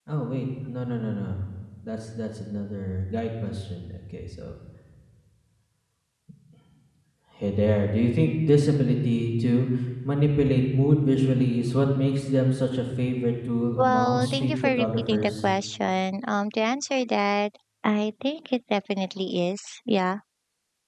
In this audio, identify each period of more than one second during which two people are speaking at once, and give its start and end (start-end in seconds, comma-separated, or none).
13.8-15.3